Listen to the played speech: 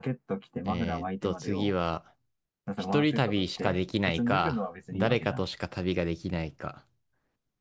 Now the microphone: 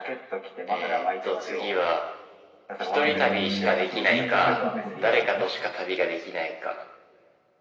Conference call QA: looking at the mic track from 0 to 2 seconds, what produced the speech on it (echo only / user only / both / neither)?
echo only